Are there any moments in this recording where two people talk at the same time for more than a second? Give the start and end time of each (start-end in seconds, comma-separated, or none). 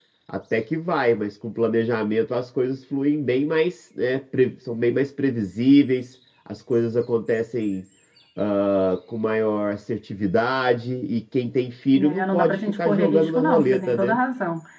11.9-14.2